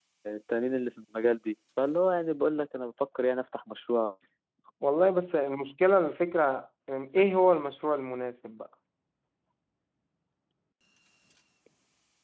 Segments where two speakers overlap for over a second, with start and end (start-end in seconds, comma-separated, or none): none